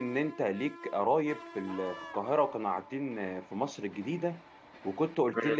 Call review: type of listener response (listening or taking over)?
listening